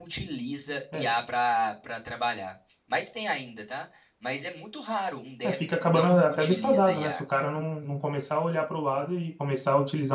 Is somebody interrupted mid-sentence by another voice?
Yes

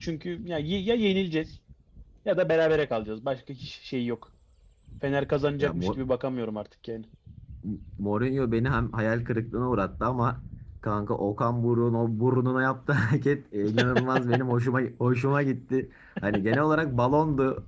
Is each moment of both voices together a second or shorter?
Yes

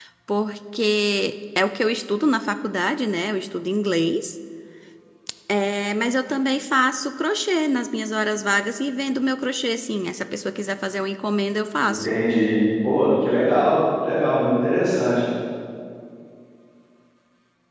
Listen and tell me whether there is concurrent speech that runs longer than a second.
No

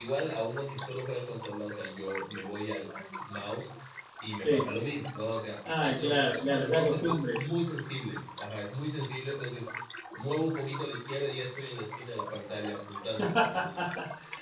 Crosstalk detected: Yes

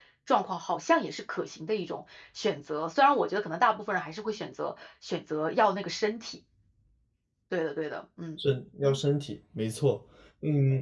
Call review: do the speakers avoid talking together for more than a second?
Yes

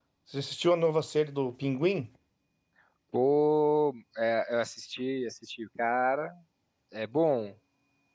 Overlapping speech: No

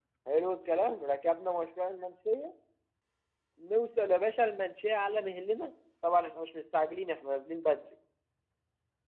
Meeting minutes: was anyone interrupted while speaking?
No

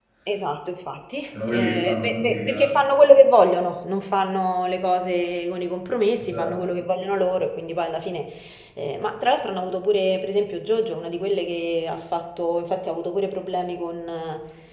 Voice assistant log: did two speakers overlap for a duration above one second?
Yes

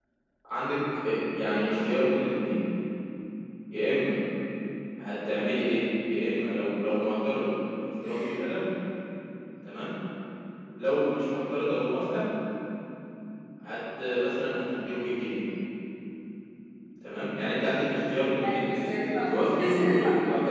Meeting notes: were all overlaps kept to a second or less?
No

